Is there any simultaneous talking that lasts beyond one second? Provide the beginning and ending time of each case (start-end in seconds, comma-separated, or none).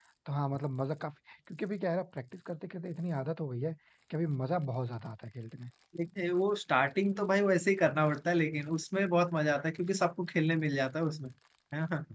none